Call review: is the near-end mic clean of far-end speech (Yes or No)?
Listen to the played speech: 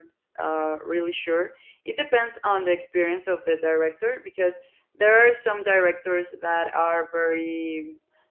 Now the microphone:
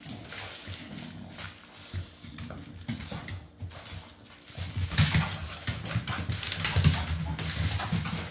Yes